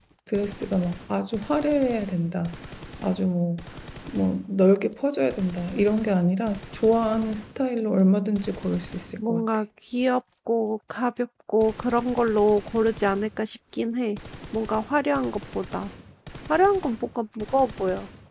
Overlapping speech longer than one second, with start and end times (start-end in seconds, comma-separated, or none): none